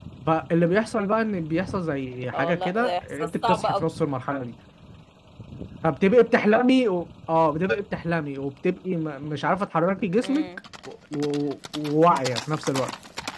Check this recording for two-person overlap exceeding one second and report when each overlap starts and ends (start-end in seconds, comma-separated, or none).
2.3-3.8